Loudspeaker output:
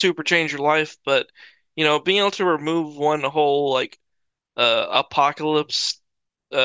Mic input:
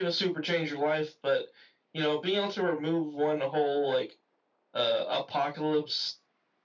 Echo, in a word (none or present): present